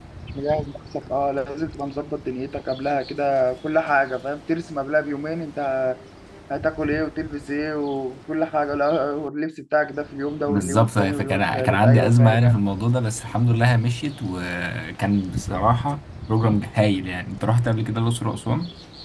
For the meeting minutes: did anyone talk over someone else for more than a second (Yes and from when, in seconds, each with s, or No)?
Yes, from 10.5 s